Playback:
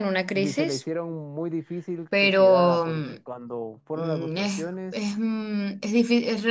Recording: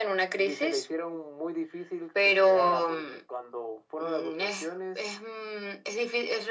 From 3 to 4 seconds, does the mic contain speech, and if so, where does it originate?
echo only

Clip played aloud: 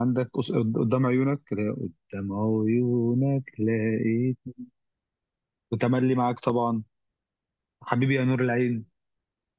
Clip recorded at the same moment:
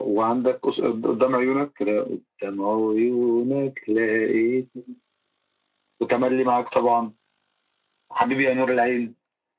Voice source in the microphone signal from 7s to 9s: echo only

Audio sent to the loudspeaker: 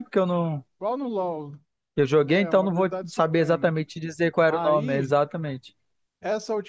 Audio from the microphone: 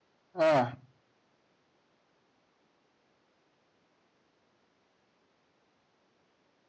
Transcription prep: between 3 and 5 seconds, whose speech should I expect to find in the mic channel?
neither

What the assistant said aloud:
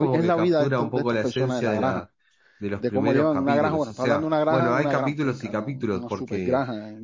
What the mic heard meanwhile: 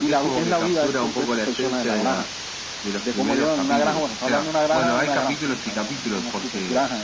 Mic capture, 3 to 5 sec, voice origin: echo only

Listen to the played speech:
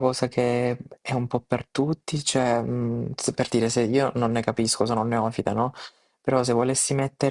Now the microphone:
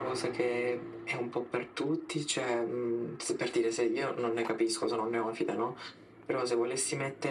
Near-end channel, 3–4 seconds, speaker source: echo only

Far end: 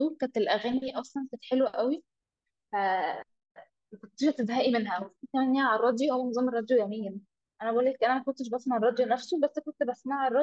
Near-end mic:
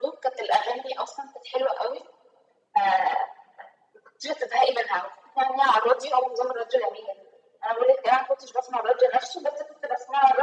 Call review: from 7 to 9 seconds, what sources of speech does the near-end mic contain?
echo only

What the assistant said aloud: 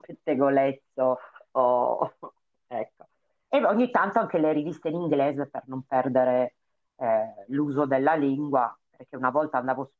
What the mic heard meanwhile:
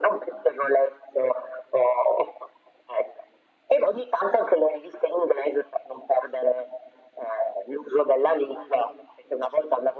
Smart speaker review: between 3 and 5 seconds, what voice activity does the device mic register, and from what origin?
echo only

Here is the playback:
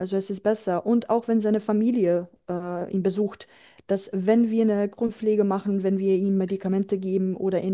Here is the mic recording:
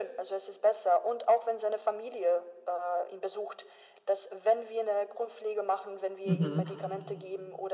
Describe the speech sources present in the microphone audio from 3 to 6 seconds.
echo only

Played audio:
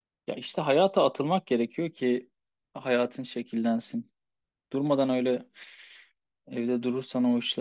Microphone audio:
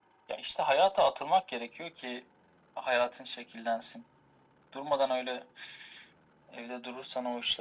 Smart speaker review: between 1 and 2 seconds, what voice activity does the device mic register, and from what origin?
echo only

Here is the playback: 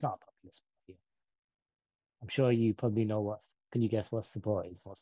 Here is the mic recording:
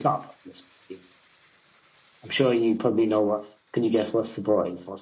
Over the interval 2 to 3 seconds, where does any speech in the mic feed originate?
echo only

